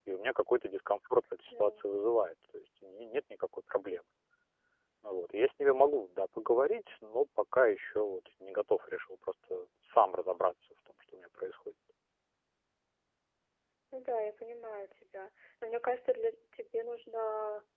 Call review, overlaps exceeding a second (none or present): none